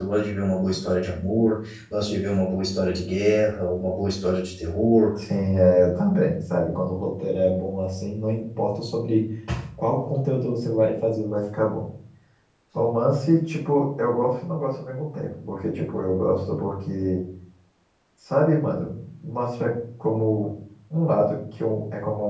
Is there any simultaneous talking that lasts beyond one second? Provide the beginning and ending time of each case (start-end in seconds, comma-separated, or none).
none